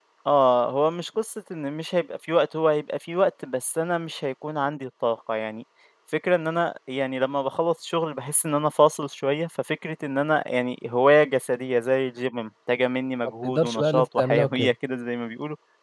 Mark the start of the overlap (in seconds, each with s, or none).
13.4 s